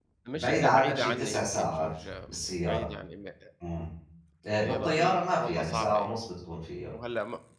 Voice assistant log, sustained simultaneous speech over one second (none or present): present